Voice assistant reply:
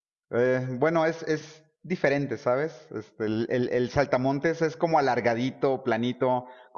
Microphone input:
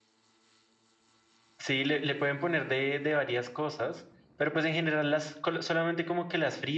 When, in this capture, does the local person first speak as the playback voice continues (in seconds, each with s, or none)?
1.6 s